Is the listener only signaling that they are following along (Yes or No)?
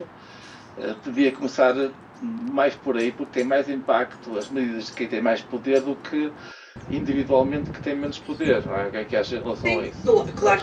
No